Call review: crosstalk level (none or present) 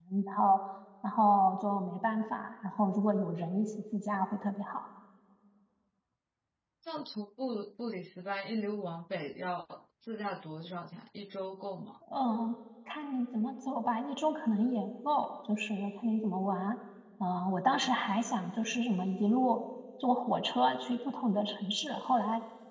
none